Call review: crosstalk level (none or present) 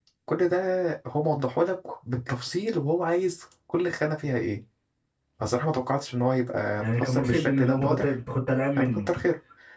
present